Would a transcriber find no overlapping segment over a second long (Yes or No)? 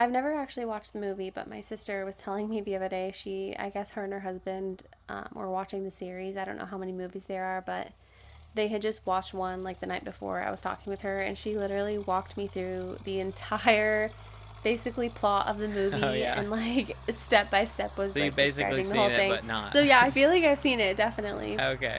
No